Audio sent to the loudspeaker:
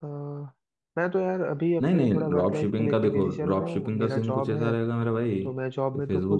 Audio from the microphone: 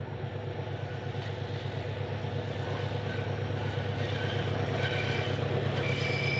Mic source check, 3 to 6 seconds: neither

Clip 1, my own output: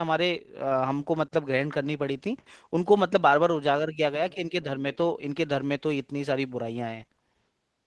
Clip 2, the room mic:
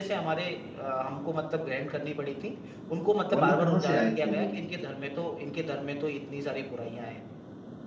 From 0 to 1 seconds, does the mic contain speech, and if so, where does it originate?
echo only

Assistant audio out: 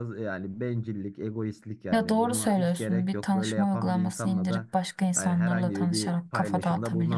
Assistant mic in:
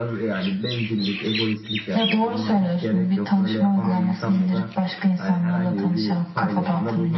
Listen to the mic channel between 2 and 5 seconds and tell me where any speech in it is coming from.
echo only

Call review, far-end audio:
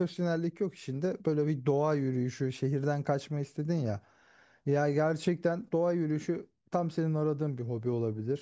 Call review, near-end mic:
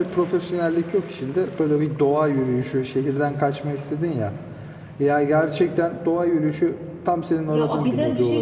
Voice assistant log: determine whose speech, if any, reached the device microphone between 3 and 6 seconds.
echo only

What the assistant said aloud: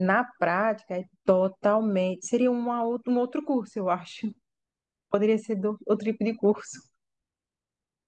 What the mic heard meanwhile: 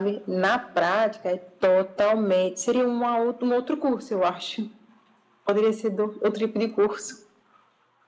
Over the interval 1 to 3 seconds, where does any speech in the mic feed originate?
echo only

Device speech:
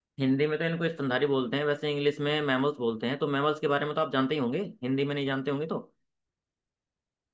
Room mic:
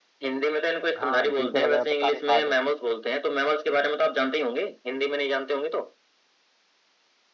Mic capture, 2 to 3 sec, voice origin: both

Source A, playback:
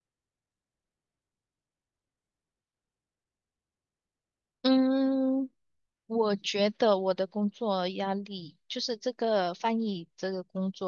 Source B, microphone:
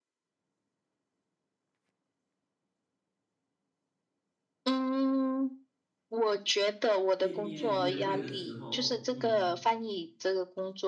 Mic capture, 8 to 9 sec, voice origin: both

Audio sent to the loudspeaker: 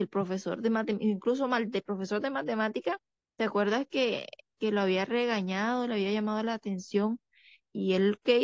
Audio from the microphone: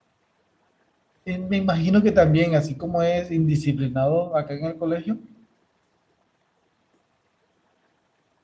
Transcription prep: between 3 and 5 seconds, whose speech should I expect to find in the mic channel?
user only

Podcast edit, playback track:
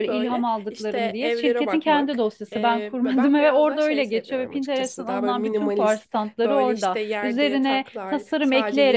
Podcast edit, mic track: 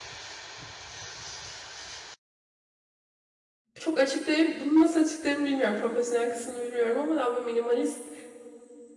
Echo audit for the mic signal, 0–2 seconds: neither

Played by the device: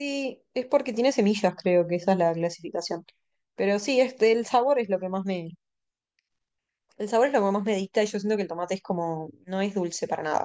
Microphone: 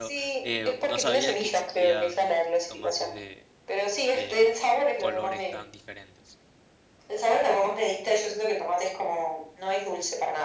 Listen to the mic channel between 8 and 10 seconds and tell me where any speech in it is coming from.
echo only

